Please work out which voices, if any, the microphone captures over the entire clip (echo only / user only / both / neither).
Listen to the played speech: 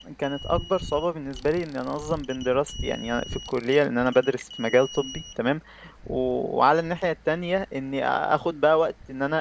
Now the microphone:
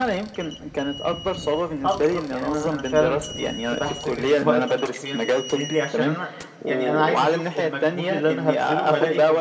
both